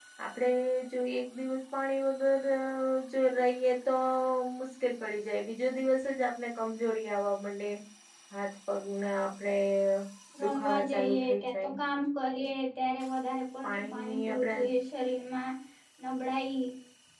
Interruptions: present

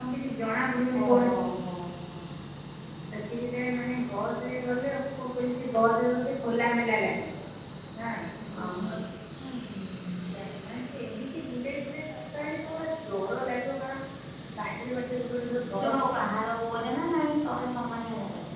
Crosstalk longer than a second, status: none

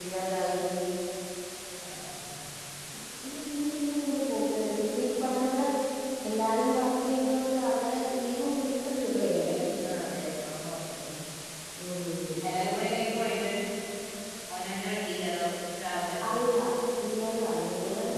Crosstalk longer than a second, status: none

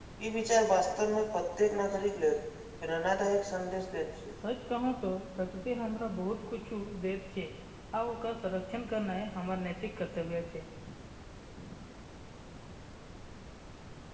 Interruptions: none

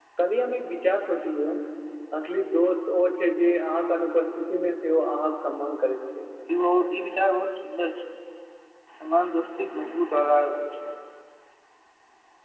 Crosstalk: none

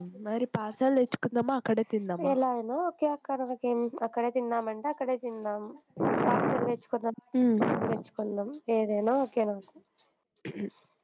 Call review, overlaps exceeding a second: none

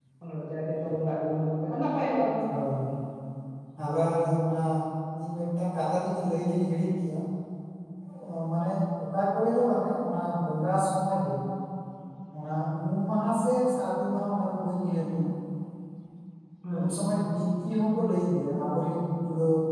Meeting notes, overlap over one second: none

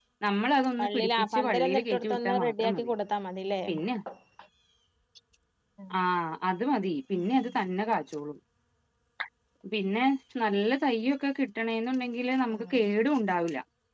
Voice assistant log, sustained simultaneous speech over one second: present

